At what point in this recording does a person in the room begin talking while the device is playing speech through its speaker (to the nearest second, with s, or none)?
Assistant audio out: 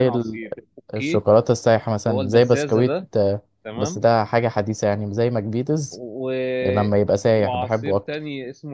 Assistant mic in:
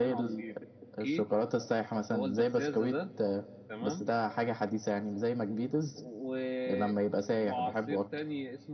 none